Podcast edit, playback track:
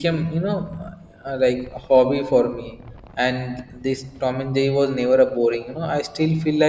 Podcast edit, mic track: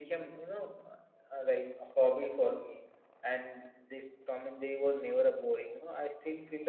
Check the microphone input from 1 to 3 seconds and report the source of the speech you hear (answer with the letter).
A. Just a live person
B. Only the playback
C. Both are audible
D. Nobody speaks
B